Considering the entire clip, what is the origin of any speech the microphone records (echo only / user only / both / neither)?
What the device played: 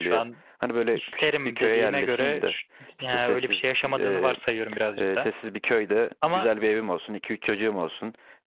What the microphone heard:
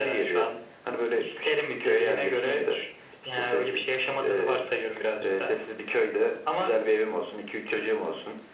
echo only